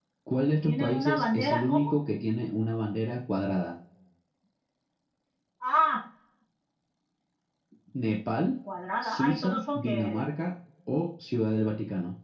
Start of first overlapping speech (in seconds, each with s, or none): 0.6 s